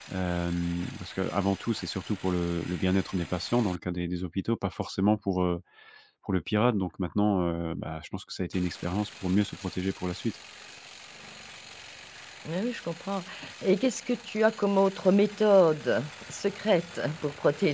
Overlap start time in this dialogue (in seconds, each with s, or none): none